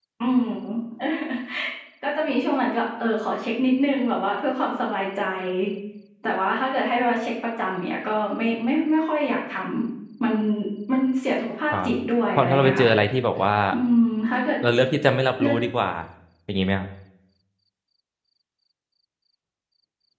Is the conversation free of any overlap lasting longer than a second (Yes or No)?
Yes